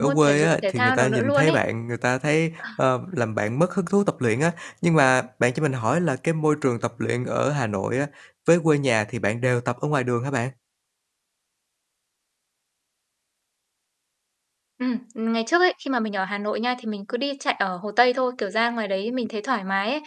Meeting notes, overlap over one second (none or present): present